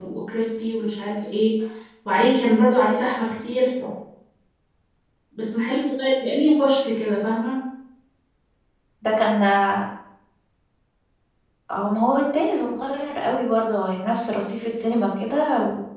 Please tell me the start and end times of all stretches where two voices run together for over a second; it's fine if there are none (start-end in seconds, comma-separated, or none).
none